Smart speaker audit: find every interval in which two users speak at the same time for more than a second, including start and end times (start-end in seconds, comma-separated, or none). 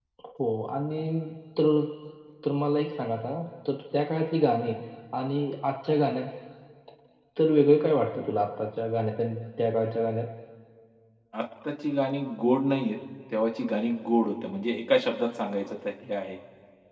none